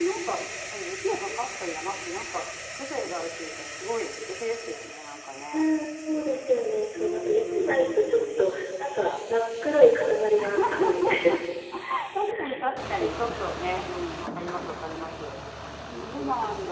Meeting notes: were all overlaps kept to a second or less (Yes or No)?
No